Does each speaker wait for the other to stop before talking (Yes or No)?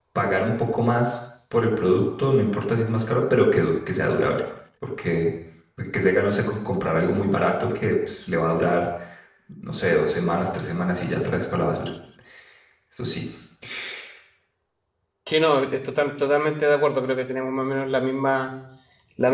Yes